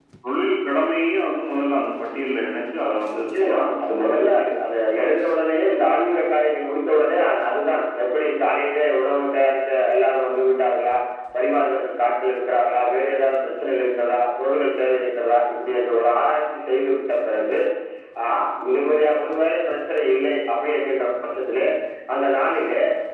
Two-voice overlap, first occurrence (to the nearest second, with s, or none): 3 s